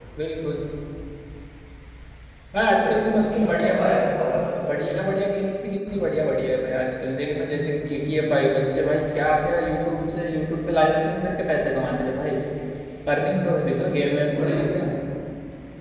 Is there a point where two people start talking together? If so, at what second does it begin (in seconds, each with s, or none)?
2.7 s